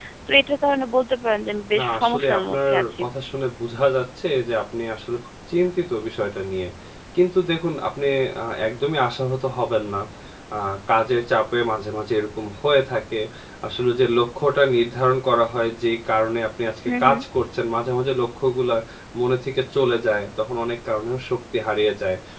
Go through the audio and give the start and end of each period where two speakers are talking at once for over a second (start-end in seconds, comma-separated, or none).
1.8-3.0